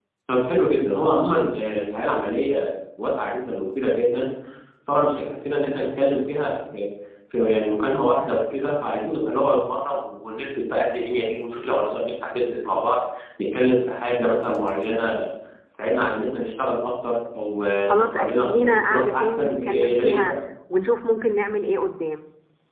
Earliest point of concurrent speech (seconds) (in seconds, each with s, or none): 17.9 s